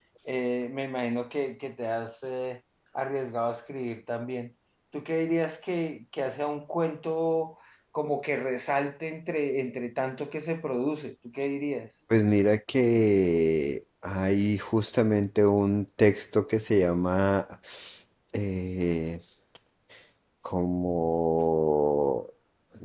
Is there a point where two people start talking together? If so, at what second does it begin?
none

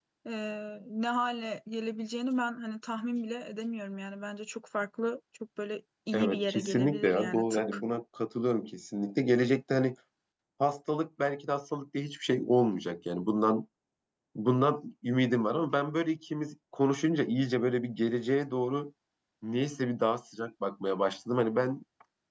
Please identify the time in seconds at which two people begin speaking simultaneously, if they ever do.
6.1 s

